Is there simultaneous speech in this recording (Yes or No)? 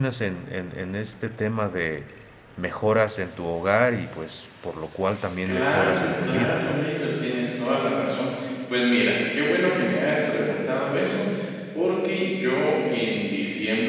Yes